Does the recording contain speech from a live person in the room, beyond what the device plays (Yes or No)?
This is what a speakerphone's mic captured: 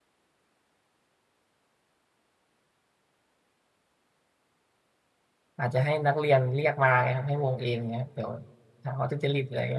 Yes